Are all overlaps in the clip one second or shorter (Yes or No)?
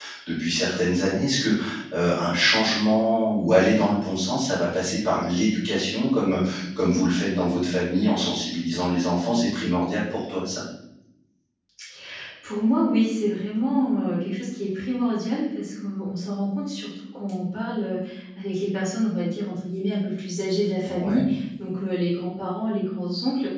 Yes